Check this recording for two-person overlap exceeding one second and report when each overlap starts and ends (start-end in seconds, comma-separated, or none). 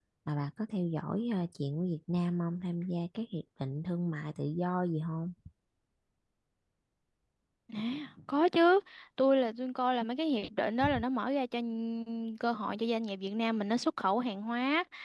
none